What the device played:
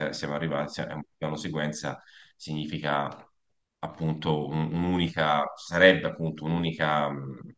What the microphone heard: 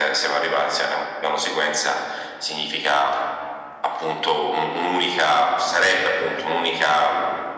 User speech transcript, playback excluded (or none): none